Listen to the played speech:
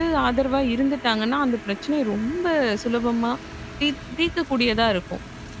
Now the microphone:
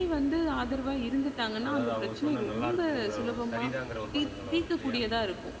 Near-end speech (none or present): present